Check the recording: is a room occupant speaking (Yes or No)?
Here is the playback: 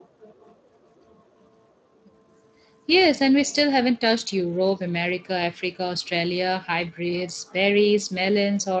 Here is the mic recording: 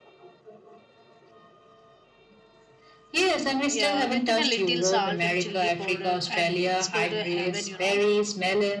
Yes